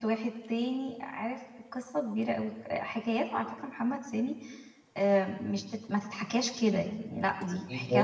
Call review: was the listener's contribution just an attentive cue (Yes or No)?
No